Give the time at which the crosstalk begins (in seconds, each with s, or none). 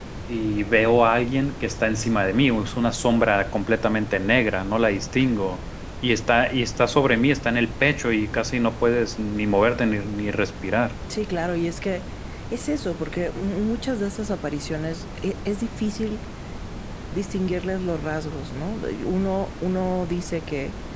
none